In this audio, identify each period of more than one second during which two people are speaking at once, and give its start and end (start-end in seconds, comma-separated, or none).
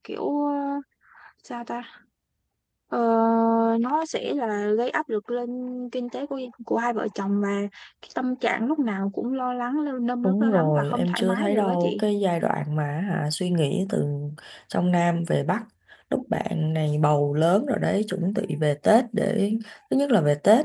10.2-12.0